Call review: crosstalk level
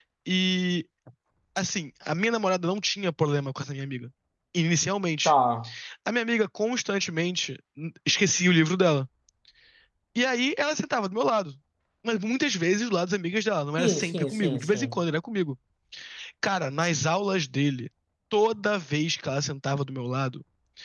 present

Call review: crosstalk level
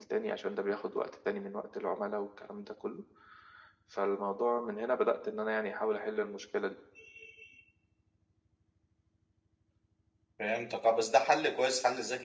none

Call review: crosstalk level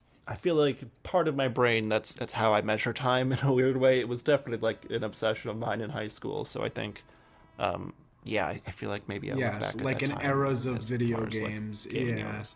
present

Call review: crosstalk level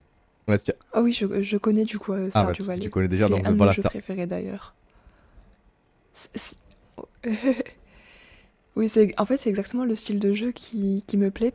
present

